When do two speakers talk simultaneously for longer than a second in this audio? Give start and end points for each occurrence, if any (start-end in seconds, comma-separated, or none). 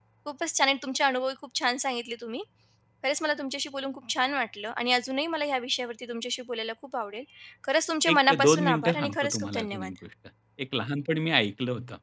8.1-9.9